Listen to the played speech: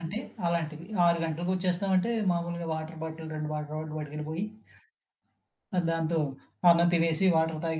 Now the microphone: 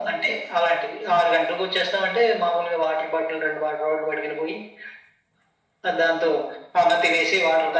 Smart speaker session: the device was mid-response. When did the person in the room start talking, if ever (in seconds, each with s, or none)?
none